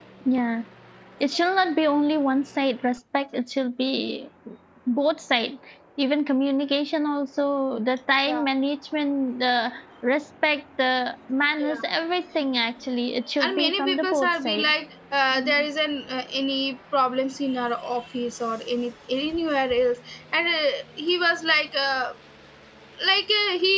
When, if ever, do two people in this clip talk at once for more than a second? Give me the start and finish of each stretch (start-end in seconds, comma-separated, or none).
13.4-14.7